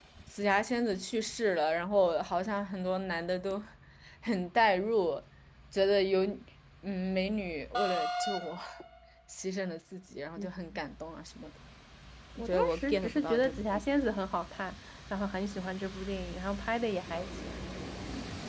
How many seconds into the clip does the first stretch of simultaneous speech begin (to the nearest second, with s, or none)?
12 s